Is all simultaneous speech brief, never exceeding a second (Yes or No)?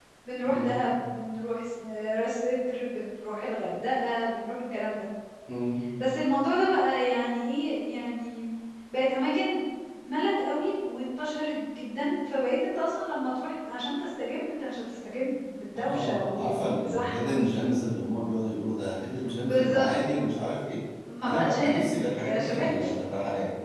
No